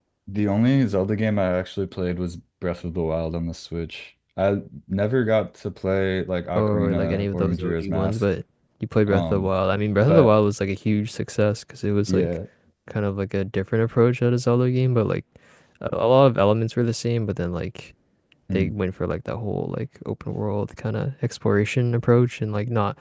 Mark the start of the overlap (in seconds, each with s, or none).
6.5 s